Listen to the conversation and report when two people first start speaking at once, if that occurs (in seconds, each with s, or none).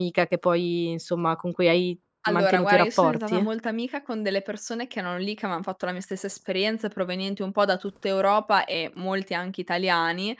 2.2 s